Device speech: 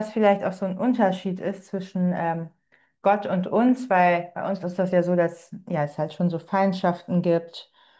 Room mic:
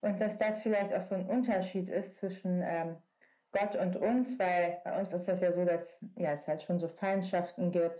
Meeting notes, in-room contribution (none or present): none